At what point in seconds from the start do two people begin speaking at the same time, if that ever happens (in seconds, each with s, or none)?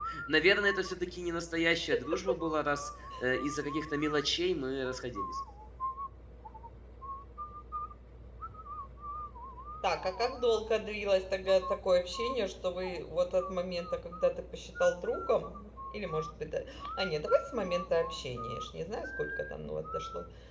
none